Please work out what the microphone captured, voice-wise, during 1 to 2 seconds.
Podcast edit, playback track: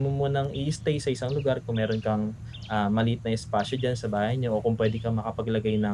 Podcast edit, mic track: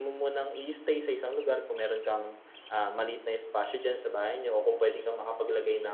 echo only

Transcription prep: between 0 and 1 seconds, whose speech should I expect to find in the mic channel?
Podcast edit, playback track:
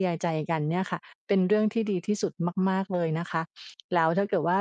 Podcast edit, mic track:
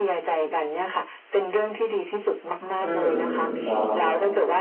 echo only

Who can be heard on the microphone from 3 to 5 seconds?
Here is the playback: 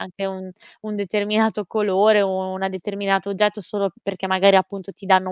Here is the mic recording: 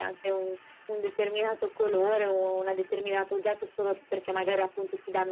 echo only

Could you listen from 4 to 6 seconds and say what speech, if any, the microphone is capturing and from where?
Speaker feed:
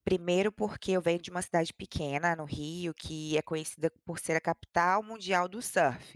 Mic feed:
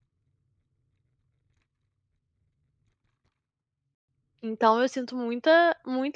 user only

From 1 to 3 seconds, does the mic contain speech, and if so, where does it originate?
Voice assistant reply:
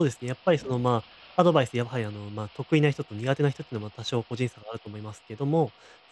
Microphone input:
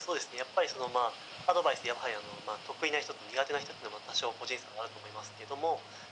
echo only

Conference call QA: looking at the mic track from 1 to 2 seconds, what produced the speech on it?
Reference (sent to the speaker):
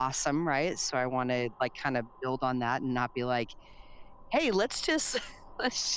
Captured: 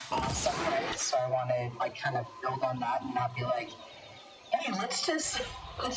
echo only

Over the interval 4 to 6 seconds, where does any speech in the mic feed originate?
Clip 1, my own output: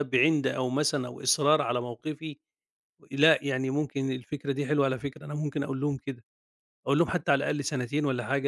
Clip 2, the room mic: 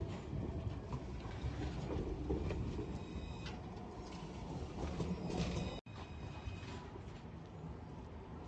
neither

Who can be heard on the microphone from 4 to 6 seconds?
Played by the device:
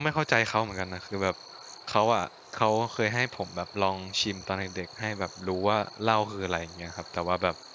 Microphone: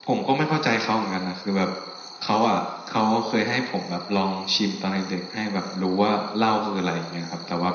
echo only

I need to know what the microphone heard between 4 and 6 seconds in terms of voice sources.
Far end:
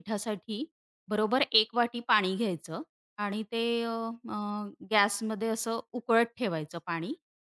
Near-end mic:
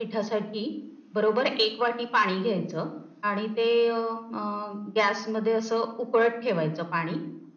echo only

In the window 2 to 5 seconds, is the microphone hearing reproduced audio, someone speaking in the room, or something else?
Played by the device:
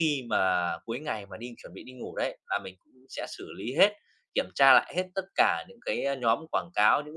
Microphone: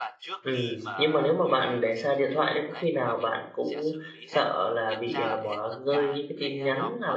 both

